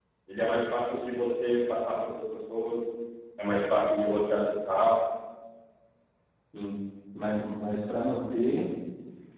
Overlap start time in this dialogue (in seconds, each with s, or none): none